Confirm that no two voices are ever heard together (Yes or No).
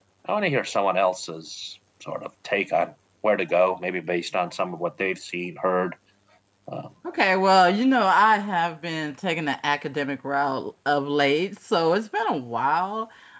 Yes